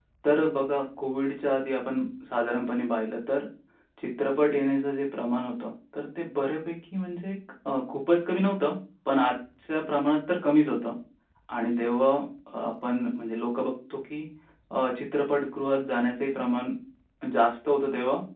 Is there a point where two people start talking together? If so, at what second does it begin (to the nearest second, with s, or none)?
none